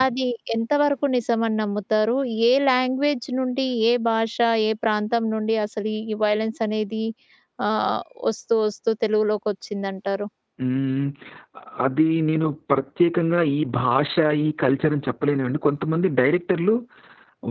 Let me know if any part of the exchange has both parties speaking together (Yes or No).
No